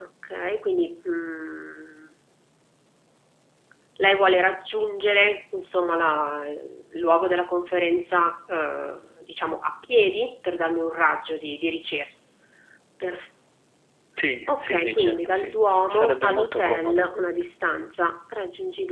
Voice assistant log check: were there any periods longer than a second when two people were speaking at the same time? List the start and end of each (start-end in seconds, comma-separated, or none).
14.5-17.1